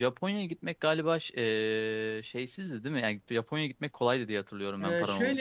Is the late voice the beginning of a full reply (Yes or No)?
Yes